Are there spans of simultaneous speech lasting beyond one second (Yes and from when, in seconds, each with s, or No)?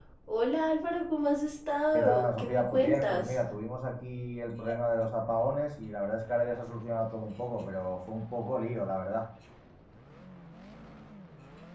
Yes, from 1.9 s